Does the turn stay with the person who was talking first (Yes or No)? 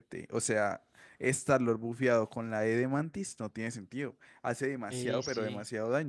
No